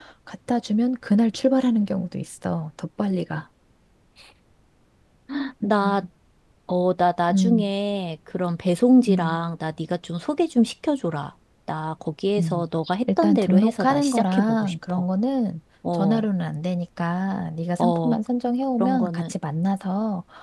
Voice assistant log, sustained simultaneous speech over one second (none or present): present